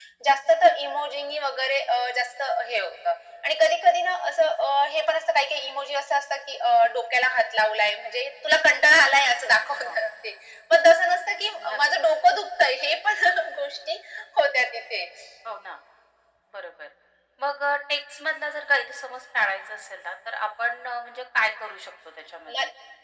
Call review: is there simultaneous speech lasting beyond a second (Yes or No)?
No